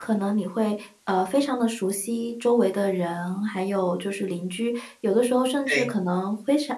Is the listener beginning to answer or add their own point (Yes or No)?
No